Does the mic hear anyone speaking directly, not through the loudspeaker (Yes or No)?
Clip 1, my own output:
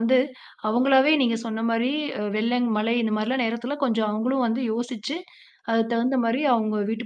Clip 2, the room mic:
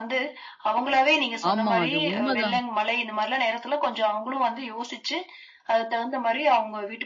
Yes